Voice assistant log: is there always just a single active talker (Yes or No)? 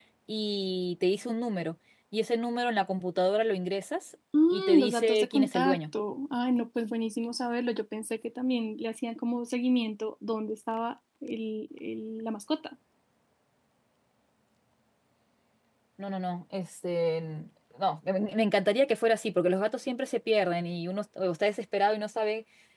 No